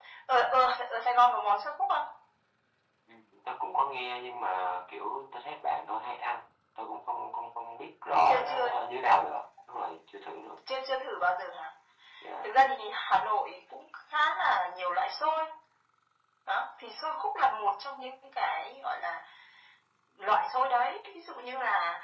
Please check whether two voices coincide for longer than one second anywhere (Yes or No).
No